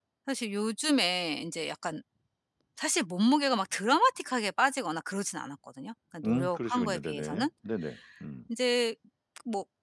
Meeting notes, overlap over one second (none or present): present